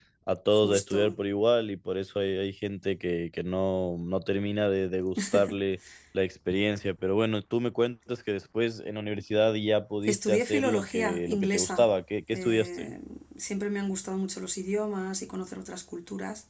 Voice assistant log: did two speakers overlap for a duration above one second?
Yes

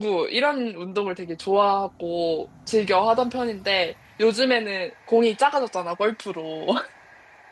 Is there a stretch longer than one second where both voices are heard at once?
No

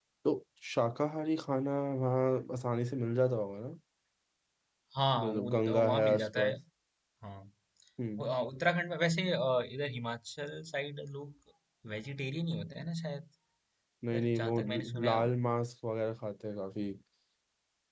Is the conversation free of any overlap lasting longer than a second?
No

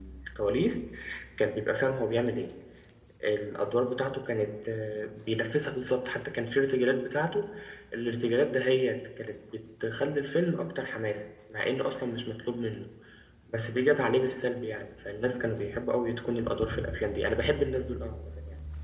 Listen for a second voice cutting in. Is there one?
No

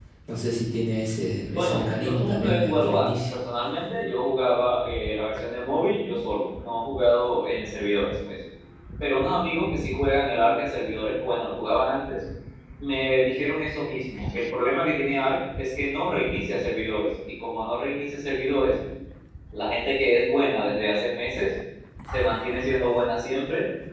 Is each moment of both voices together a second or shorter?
No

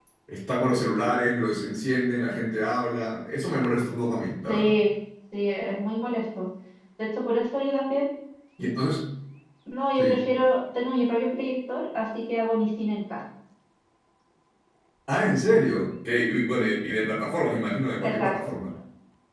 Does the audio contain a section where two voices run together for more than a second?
No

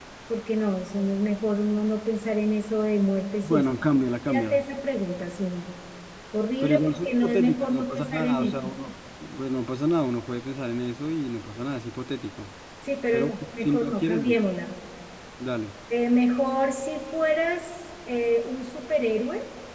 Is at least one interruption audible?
Yes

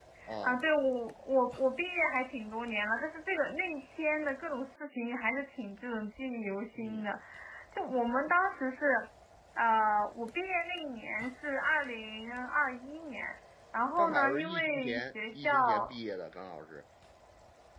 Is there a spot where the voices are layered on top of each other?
Yes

